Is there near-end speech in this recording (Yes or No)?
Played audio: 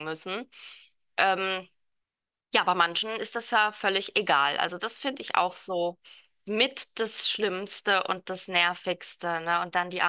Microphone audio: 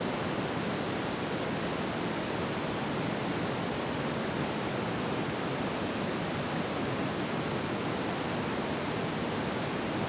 No